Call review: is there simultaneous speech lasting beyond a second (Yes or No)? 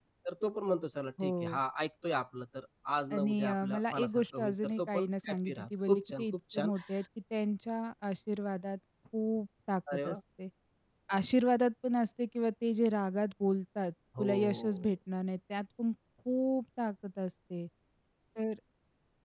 Yes